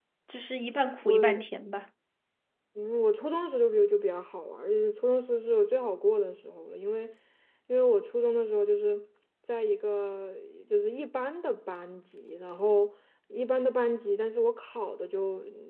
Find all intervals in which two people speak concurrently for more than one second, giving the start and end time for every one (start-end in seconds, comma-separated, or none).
none